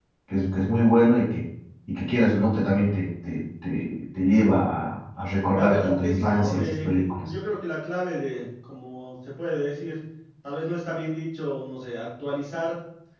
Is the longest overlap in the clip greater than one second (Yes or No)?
Yes